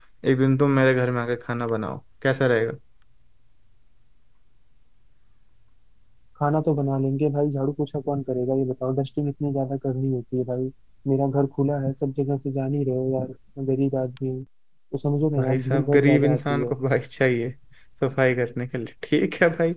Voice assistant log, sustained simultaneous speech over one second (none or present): present